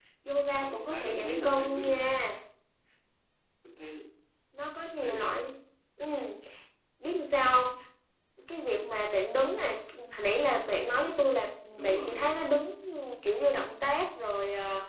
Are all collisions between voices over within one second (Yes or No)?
No